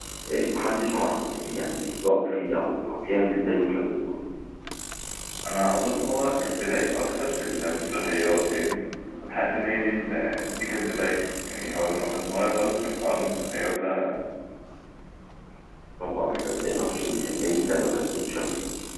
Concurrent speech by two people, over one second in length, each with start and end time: none

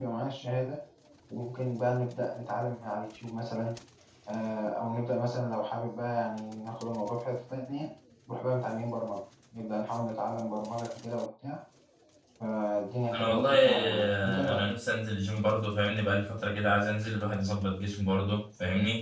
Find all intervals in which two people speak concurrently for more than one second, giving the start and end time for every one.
13.1-14.7

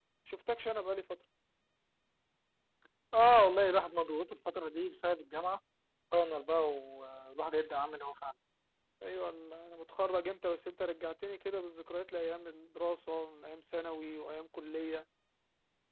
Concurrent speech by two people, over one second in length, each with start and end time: none

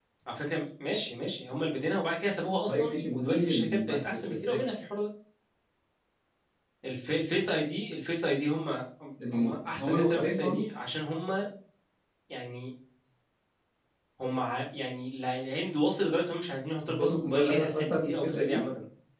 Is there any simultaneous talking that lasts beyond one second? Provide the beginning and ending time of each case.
2.7-4.6, 9.3-10.7, 16.9-18.6

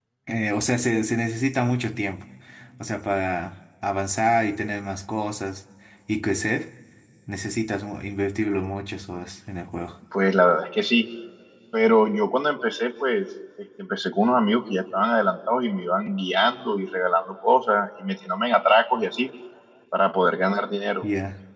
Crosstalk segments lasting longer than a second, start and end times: none

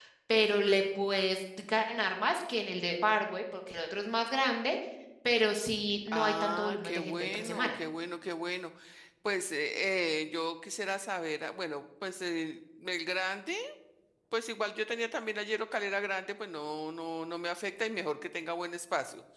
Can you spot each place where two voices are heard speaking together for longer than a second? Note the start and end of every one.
6.1-7.8

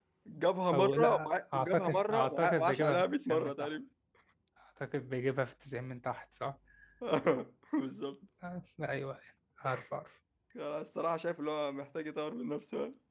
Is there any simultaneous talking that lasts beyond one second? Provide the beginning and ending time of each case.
0.7-3.7

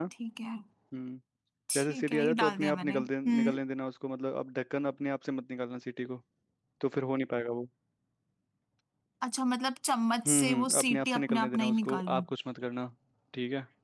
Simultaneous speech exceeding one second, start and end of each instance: 1.8-3.5, 10.2-12.2

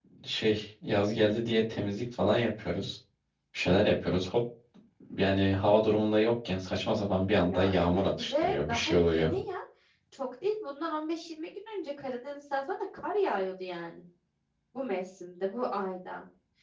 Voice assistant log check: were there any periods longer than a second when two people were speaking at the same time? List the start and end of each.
7.4-9.4

